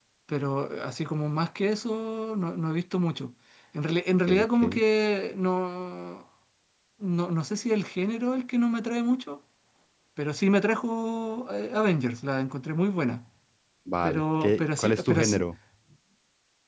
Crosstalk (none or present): present